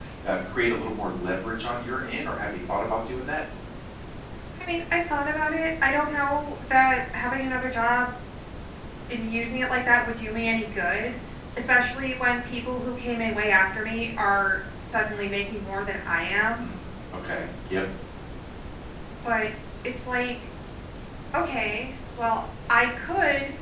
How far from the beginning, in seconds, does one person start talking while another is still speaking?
none

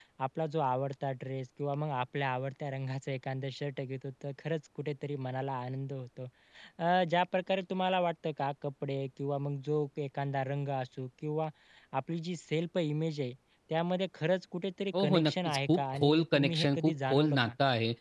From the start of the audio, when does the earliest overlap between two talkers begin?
14.9 s

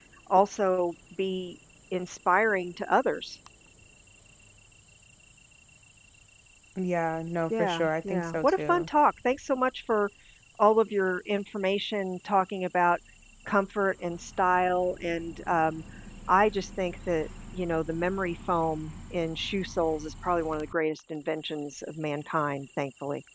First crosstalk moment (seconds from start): 7.5 s

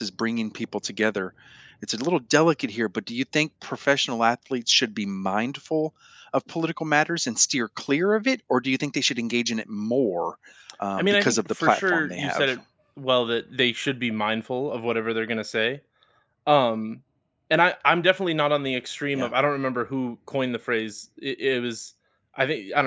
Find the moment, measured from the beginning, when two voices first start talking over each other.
11.0 s

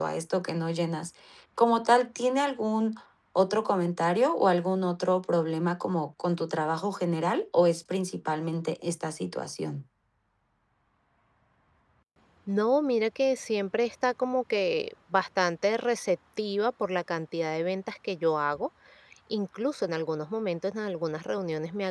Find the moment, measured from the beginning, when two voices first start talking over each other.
none

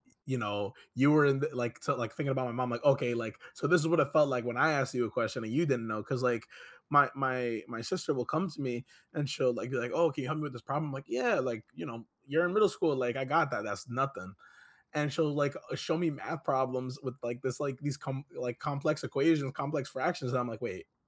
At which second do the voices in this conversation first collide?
none

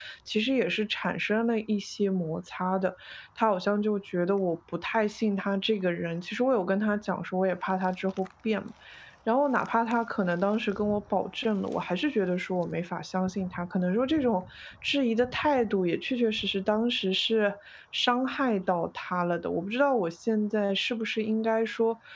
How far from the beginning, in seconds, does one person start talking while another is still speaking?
none

